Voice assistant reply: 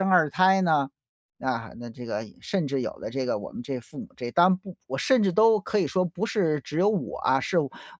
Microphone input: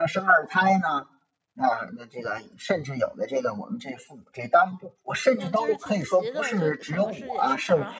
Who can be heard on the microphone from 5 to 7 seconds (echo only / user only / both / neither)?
both